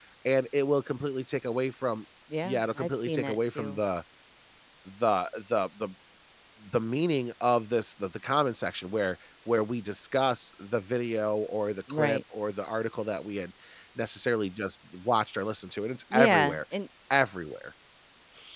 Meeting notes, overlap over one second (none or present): present